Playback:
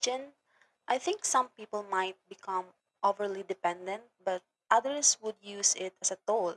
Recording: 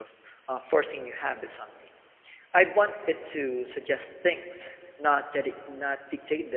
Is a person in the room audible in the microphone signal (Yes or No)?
Yes